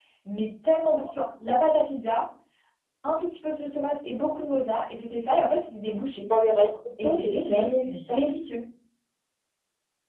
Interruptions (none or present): present